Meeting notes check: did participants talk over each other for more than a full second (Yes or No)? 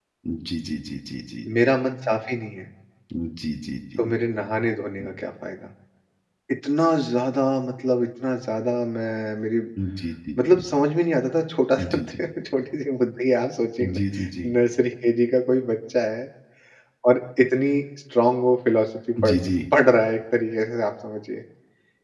No